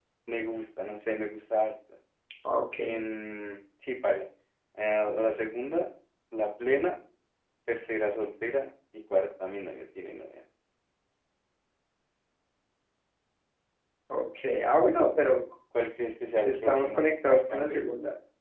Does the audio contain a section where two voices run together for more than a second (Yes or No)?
Yes